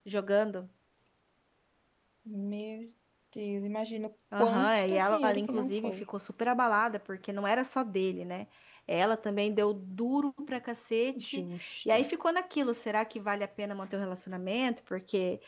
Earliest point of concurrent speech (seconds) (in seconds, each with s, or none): 4.4 s